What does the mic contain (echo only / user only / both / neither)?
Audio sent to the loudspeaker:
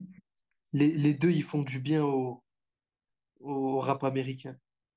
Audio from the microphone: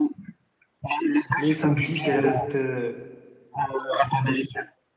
both